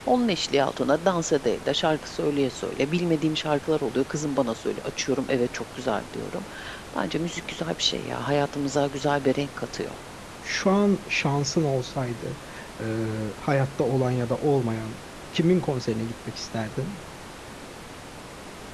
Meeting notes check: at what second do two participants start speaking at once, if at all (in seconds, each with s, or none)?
none